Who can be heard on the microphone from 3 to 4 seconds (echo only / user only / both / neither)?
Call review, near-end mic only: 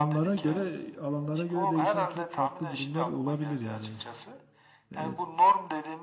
both